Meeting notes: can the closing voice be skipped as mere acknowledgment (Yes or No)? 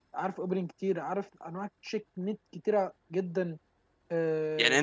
No